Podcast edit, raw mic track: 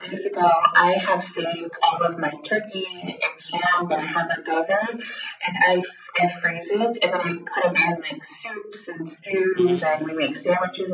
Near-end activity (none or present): present